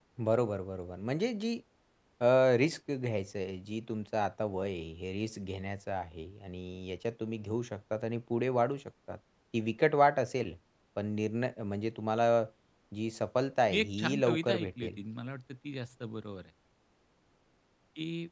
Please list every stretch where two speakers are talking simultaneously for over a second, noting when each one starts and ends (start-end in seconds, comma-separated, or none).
13.7-15.0